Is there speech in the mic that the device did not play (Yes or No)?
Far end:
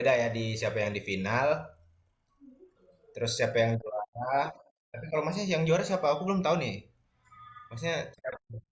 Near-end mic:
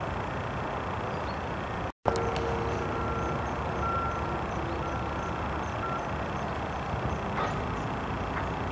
No